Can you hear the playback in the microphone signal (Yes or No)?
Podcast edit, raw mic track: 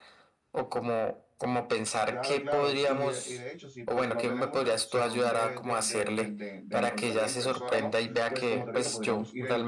Yes